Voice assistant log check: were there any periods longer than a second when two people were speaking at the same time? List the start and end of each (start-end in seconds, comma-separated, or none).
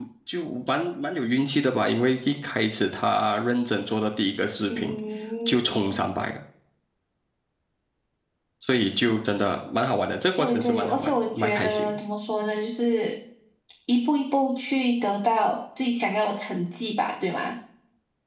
10.4-11.8